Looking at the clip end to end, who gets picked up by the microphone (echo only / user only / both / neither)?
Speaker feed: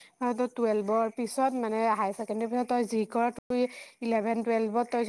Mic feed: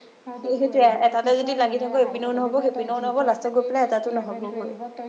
both